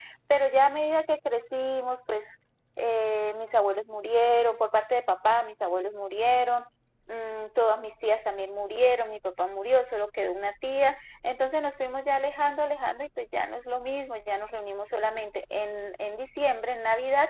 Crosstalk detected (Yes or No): No